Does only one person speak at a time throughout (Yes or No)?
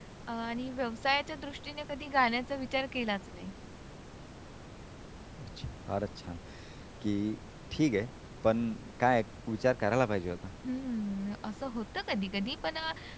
Yes